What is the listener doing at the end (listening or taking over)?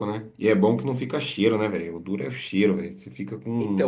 taking over